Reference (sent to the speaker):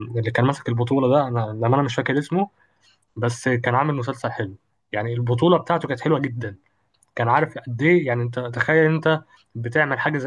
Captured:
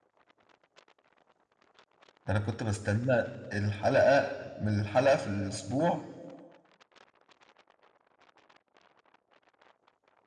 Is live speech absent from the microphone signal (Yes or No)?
No